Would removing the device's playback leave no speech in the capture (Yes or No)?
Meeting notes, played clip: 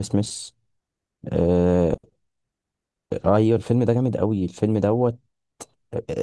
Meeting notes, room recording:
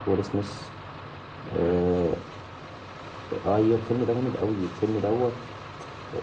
Yes